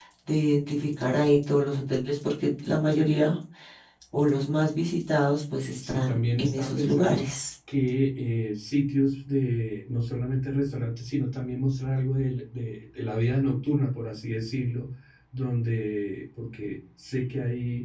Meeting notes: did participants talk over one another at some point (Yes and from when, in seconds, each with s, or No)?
Yes, from 5.9 s